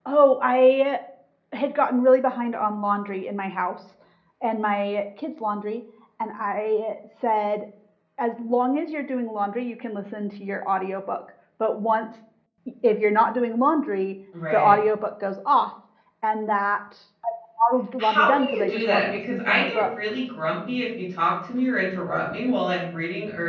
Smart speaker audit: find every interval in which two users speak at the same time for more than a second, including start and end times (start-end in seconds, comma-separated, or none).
18.0-19.9